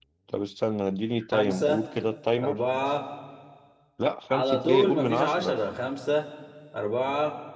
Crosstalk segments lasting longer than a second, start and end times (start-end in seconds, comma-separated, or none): 4.3-5.5